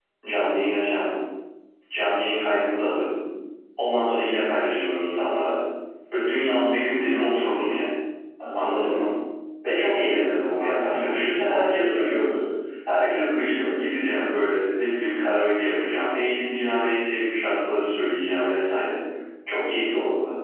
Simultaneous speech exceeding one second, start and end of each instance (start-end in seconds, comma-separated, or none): 10.6-12.3